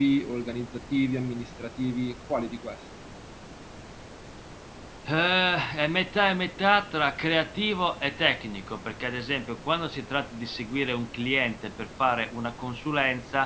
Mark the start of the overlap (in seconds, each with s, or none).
none